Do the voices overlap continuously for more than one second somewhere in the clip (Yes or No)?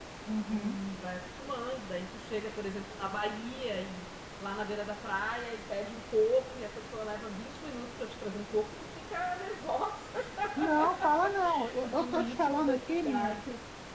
Yes